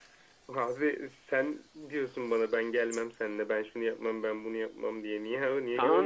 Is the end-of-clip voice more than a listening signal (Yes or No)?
Yes